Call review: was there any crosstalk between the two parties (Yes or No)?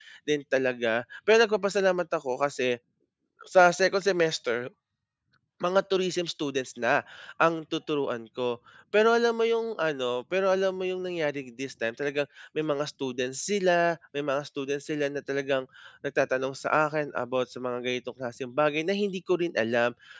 No